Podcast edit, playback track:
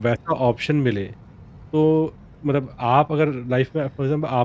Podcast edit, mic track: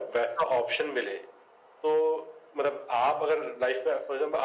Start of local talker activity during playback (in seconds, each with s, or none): none